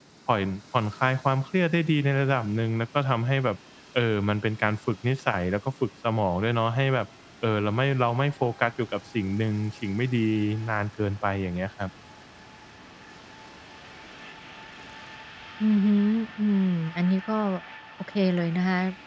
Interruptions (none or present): none